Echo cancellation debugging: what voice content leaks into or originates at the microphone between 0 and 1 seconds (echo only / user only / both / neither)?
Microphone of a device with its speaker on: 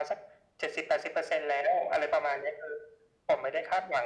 echo only